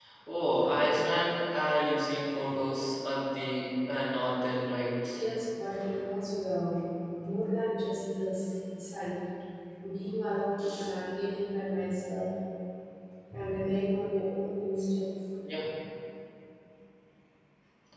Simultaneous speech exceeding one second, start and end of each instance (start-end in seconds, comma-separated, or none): none